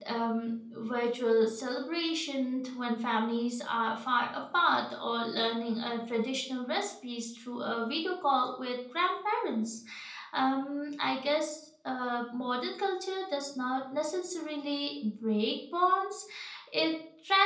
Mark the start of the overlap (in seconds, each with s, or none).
none